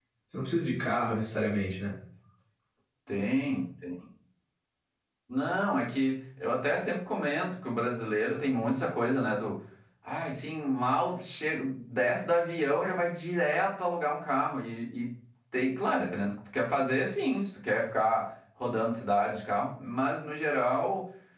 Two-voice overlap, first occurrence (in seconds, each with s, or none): none